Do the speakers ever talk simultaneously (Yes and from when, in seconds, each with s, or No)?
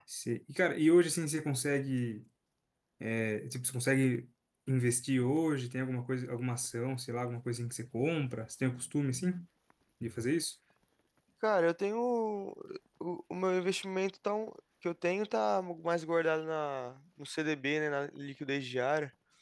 No